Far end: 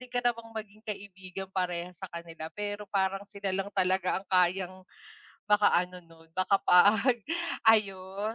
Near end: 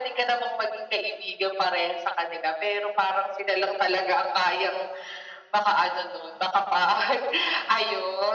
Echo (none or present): present